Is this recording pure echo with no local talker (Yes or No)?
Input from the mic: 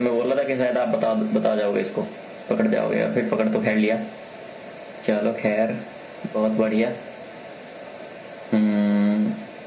Yes